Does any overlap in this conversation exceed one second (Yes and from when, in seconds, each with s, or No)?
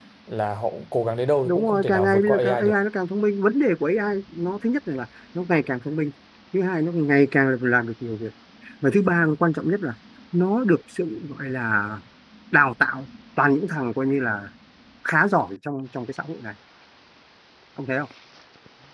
Yes, from 1.4 s